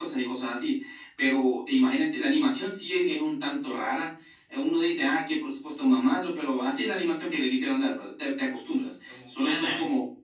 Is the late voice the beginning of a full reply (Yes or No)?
No